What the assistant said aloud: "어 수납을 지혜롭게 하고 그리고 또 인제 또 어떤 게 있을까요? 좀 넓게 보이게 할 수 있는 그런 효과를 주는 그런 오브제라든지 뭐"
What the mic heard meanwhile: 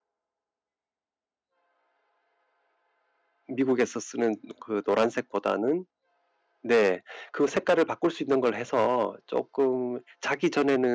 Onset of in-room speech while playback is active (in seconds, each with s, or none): 3.5 s